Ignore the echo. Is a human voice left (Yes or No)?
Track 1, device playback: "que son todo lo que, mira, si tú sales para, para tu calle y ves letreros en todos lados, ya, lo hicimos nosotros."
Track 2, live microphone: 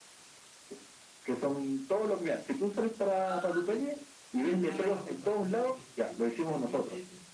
Yes